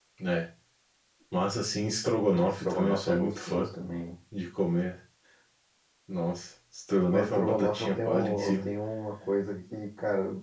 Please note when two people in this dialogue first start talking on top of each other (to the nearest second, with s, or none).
2 s